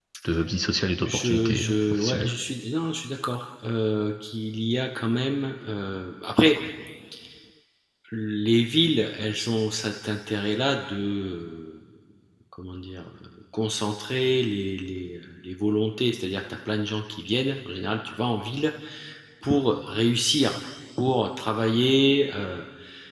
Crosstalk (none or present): present